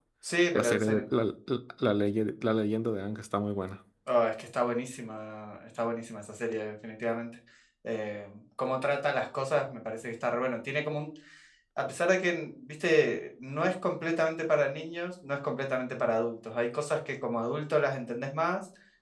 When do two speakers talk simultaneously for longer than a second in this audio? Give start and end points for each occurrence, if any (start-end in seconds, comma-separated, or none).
none